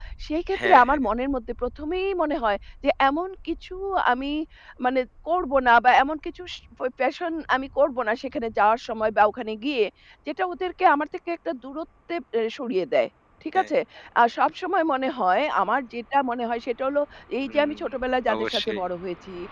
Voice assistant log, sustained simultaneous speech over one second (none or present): none